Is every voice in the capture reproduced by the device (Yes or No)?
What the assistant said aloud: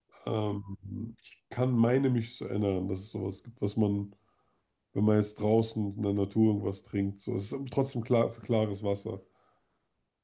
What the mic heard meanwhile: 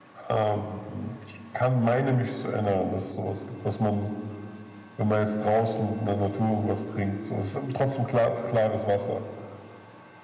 Yes